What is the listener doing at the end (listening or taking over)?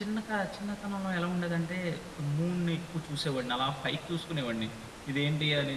listening